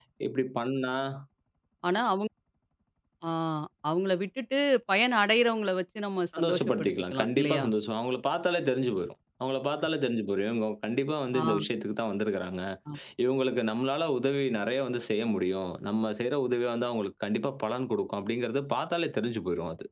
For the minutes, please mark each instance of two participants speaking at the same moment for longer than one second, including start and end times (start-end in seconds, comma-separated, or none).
6.4-7.6